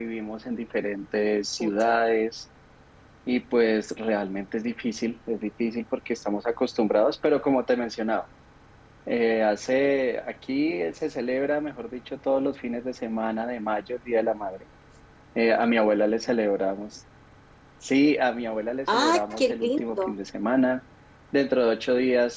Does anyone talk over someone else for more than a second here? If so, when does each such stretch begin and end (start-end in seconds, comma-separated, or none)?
18.9-20.1